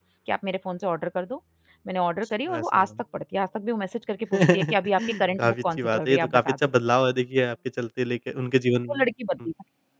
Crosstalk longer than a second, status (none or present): present